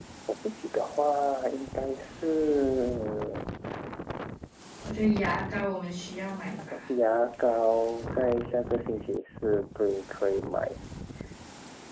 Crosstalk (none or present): none